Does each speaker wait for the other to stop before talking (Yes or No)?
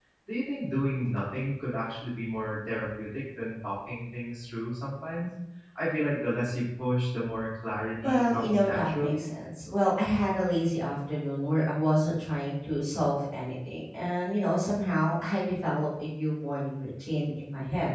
No